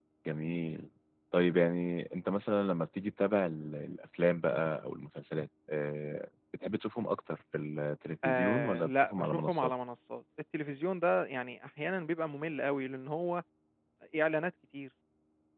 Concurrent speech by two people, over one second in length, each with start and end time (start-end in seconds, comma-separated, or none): 8.2-9.7